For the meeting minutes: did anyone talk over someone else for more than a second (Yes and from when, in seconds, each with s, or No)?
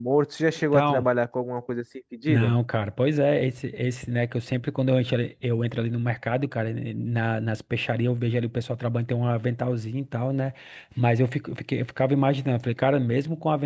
No